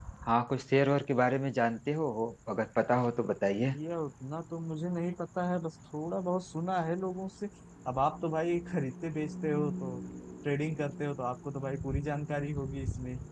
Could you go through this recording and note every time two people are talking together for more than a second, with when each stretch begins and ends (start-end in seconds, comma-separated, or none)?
none